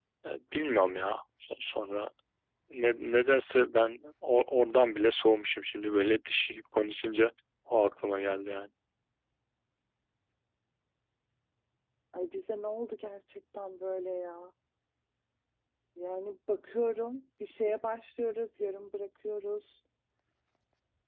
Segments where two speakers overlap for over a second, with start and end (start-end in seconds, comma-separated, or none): none